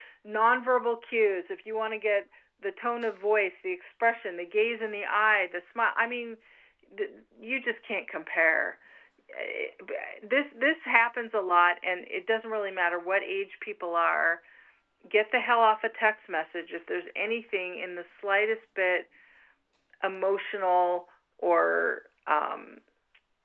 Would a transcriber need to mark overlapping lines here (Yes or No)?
No